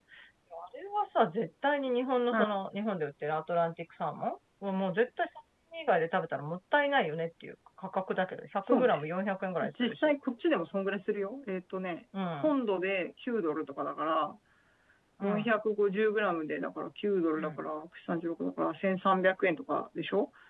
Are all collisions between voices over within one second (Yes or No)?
Yes